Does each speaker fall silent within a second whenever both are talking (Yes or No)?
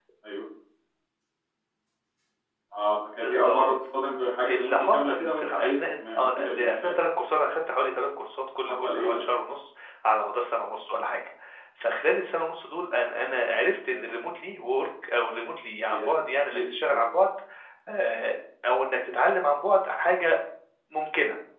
No